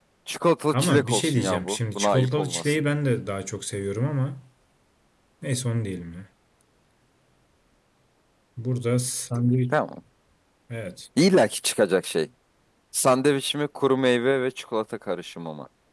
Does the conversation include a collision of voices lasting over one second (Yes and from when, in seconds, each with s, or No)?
Yes, from 0.7 s